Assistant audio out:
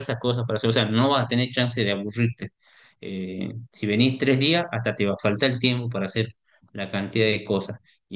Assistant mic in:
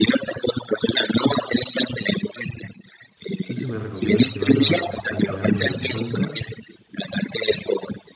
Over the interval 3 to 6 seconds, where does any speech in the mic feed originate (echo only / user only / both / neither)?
both